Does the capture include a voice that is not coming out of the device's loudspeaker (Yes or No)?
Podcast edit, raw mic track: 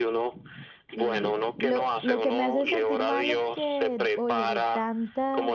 Yes